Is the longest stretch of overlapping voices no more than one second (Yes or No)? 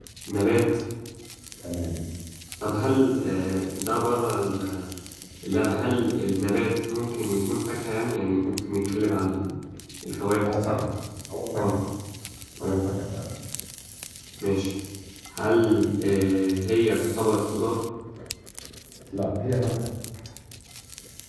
Yes